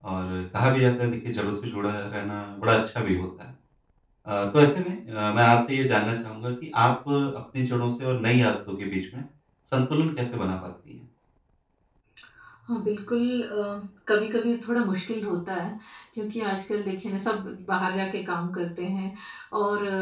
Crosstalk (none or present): none